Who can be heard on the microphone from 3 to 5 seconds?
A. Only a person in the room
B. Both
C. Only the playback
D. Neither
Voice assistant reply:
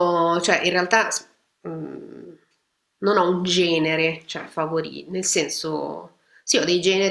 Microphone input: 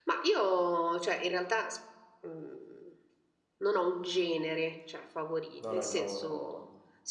C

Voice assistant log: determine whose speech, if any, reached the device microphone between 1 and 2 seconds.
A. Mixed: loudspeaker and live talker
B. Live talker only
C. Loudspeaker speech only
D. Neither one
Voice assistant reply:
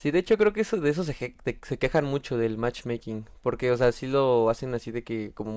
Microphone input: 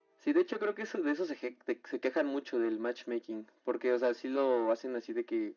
C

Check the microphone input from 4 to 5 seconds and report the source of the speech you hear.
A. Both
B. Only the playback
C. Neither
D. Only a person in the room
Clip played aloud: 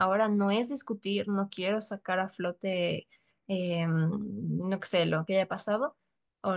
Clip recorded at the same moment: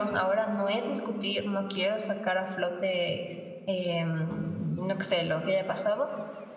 B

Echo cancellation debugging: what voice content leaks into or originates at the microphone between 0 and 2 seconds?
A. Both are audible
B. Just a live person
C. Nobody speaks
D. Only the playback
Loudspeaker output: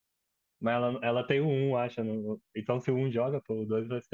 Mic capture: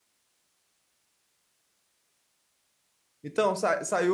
C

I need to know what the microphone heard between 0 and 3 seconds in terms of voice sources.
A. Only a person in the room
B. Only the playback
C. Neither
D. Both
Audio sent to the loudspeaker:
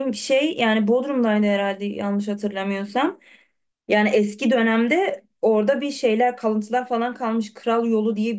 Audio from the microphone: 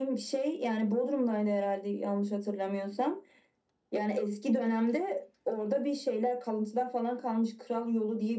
B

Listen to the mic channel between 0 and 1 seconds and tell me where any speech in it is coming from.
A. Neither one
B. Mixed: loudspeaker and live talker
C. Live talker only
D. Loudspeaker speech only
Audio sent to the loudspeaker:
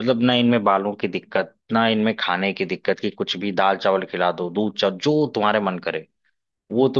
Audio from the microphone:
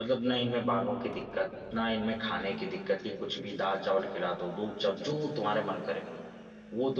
D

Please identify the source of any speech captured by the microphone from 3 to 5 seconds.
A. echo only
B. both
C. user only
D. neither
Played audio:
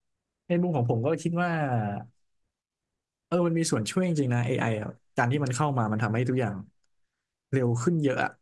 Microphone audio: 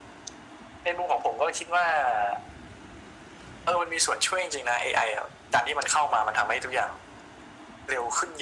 A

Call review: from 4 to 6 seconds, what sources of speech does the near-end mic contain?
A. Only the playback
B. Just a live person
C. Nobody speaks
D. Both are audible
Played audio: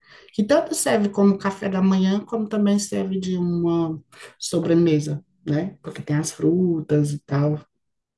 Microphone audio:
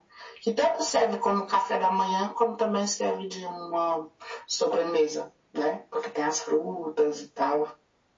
A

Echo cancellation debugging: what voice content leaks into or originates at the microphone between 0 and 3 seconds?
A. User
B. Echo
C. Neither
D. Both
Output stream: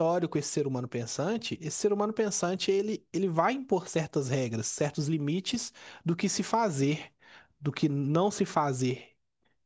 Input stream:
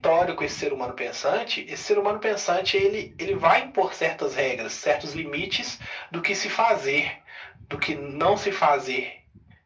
B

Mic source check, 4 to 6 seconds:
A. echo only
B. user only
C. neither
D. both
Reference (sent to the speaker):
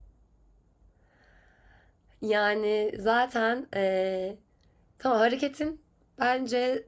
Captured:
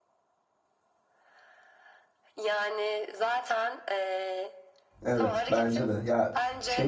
D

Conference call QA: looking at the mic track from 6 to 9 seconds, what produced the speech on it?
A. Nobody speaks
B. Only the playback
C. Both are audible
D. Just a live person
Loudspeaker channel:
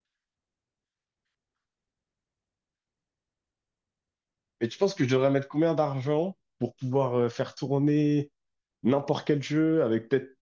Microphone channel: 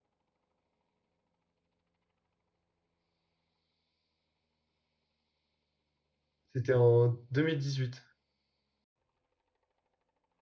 D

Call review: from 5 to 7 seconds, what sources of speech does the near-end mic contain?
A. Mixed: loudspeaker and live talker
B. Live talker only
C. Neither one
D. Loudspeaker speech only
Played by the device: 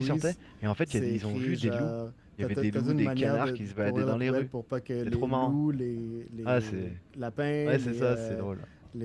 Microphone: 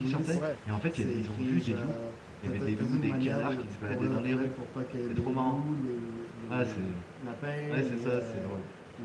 D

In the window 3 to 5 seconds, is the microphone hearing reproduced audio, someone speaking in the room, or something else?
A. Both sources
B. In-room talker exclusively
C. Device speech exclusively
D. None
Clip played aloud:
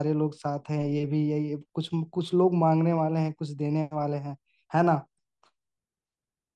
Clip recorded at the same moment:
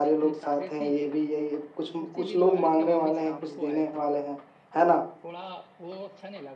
A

